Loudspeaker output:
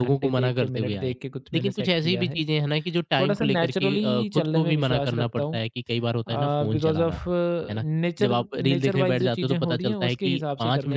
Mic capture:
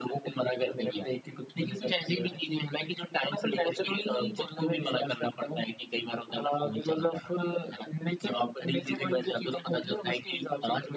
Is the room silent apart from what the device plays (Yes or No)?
Yes